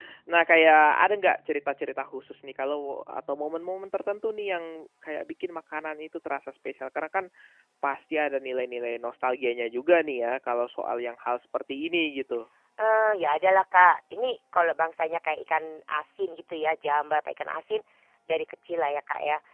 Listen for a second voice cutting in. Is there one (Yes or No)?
No